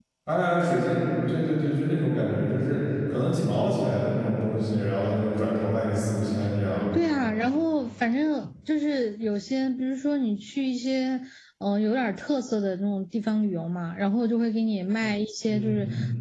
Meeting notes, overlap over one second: none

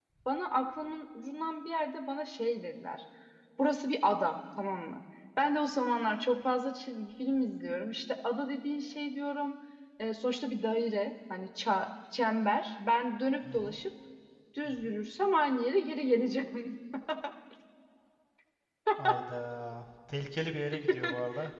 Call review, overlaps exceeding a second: none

